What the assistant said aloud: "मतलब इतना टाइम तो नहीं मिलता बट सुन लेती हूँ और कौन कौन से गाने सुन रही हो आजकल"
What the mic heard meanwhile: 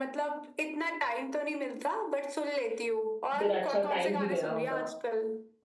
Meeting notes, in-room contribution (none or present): present